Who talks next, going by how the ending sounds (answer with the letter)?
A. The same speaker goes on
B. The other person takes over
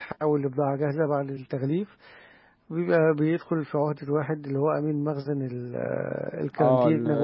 B